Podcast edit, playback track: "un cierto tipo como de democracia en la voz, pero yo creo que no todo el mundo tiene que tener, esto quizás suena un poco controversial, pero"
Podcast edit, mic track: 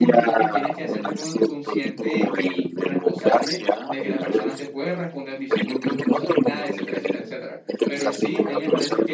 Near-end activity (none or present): present